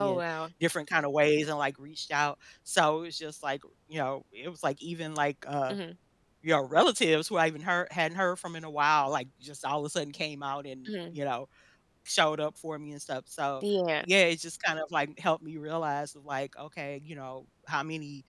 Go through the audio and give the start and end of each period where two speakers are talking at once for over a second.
none

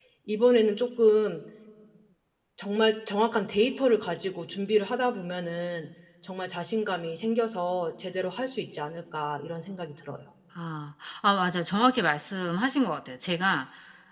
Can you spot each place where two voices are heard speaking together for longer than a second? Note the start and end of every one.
none

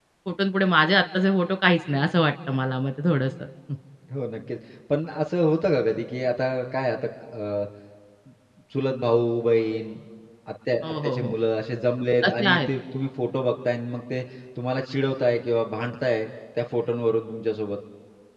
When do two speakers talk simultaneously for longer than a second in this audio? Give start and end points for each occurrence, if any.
none

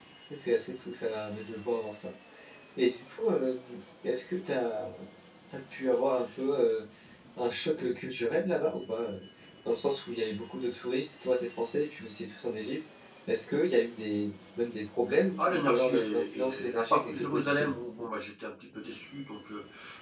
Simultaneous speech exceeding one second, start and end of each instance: 15.4-17.7

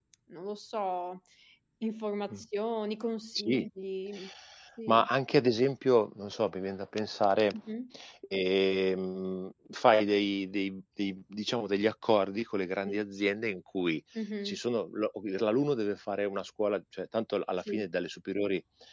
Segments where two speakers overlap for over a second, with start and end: none

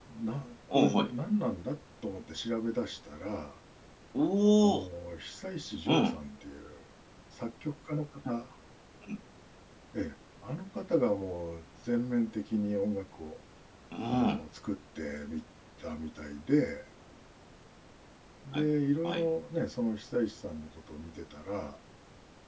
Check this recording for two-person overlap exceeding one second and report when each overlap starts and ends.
none

